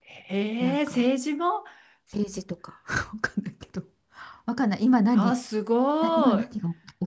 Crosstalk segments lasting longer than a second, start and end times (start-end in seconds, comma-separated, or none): none